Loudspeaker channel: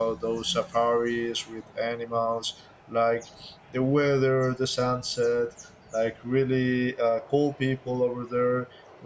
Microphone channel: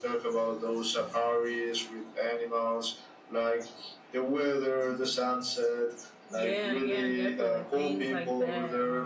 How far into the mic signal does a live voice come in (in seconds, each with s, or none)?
6.3 s